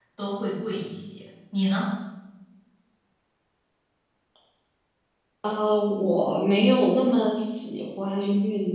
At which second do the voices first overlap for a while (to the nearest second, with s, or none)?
none